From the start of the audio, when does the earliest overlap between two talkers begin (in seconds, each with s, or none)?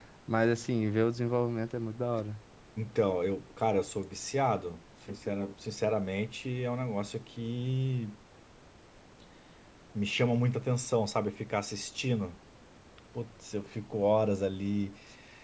none